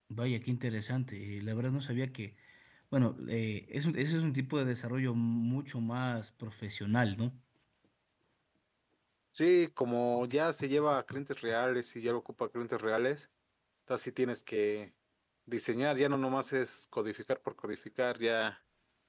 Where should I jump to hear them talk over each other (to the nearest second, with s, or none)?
none